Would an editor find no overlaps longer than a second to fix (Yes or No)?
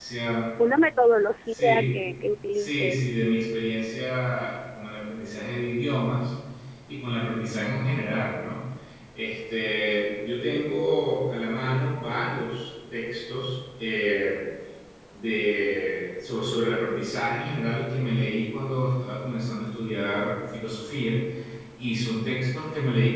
Yes